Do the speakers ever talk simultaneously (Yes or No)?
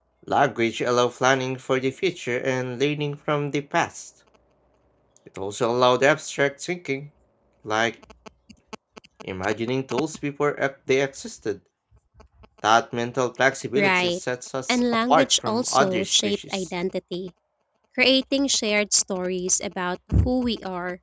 Yes